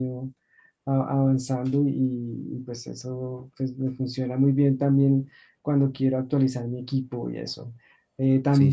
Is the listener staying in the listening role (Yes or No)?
Yes